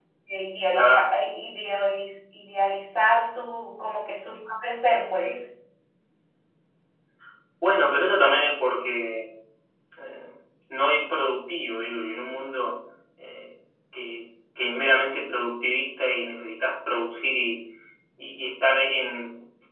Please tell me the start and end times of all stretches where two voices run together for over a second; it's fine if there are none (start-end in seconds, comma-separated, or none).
none